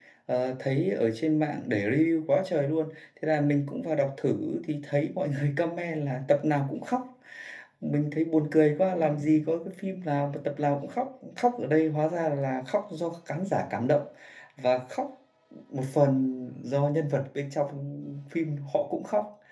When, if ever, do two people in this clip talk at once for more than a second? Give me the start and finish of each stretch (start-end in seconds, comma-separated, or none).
none